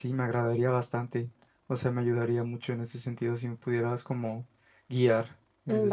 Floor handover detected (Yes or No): Yes